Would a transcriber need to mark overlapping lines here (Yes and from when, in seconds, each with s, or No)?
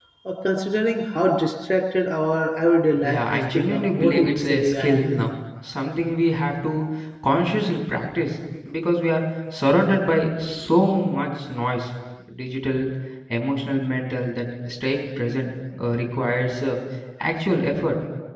Yes, from 3.0 s